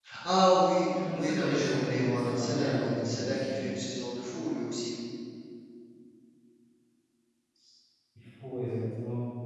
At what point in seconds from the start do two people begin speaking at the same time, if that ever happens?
1.1 s

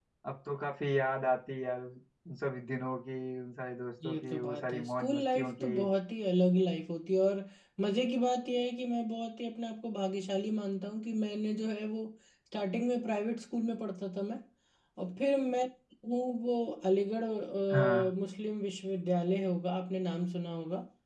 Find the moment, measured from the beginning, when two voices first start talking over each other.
4.0 s

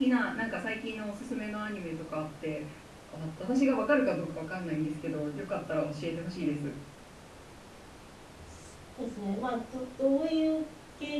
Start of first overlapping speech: none

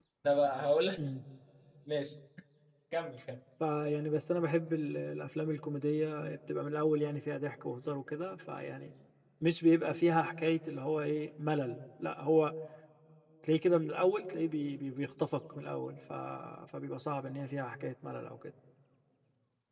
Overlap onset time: none

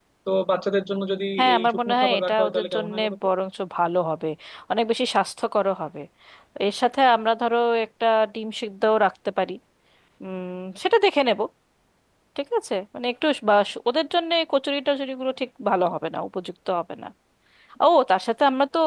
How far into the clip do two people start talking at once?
1.4 s

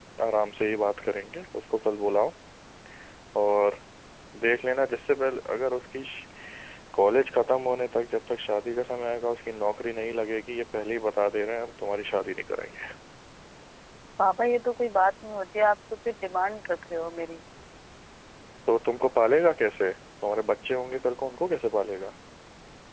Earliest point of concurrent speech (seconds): none

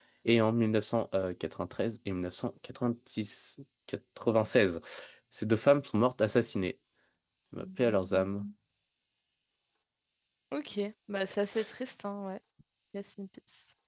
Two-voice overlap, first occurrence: none

